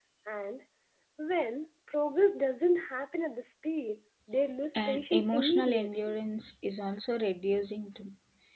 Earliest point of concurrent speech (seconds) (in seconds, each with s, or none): 4.7 s